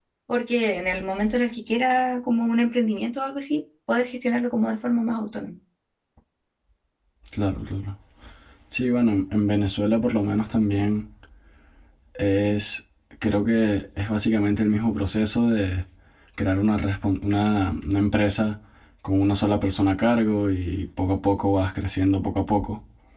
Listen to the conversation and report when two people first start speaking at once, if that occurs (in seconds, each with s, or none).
none